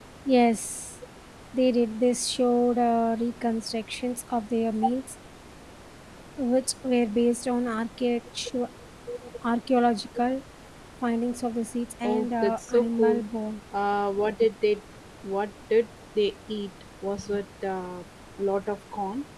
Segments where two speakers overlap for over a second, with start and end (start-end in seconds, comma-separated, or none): 12.0-13.2